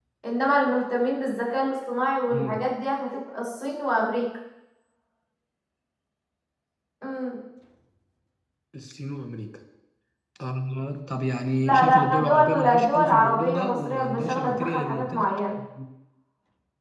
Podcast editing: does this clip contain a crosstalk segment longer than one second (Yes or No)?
Yes